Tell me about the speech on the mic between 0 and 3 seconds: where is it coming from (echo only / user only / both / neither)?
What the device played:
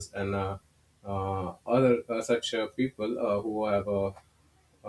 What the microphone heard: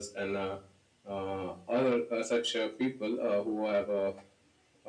echo only